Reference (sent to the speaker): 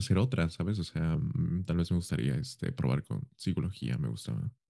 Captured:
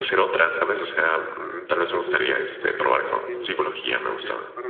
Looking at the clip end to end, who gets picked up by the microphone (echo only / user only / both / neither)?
both